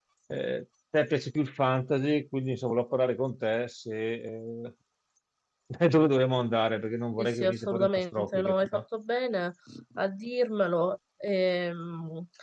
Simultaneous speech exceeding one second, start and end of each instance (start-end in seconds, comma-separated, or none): 7.2-8.8